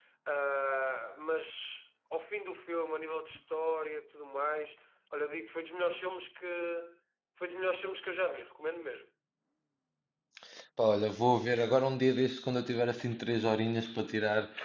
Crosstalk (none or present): none